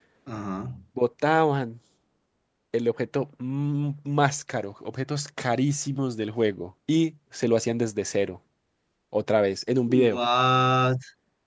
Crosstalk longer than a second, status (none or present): none